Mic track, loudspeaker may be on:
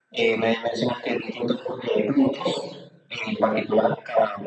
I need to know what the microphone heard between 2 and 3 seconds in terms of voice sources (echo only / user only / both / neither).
echo only